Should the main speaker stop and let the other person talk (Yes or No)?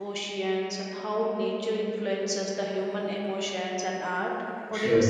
Yes